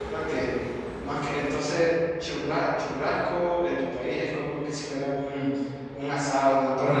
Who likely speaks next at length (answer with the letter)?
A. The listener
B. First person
A